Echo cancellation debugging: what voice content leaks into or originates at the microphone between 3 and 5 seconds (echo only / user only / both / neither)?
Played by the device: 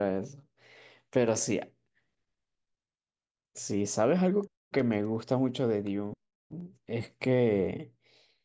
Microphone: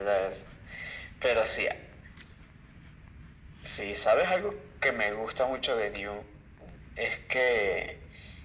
echo only